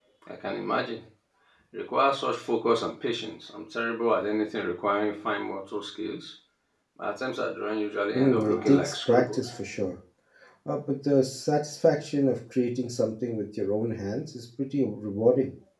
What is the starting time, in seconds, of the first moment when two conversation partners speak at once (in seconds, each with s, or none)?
8.1 s